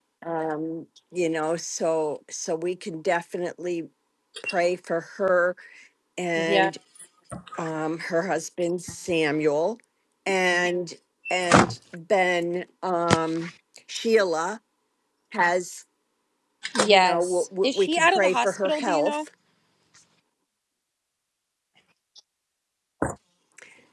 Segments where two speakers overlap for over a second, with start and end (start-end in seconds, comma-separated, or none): 16.9-19.2